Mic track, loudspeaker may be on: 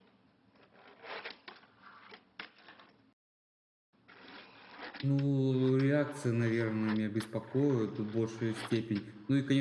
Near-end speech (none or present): present